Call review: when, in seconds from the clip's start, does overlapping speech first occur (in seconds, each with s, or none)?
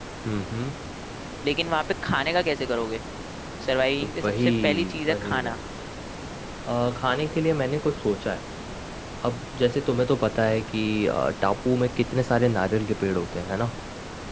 4.0 s